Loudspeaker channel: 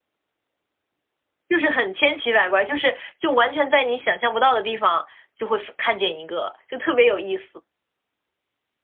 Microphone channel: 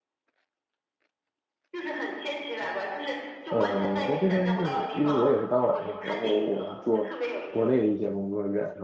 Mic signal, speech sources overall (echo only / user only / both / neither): both